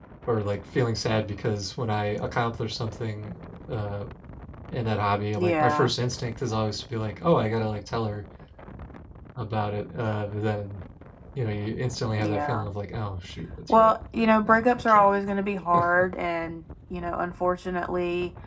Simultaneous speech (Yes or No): Yes